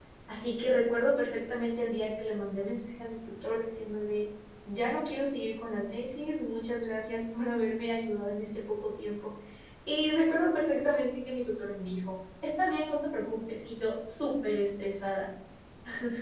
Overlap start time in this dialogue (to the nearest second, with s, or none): none